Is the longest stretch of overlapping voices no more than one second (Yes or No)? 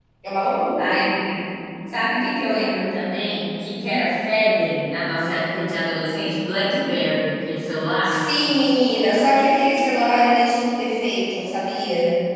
Yes